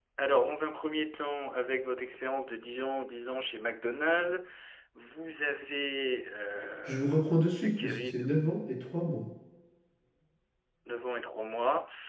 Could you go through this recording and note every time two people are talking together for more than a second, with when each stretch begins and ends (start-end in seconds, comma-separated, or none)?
none